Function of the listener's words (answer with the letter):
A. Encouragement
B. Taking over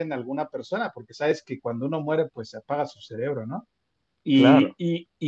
A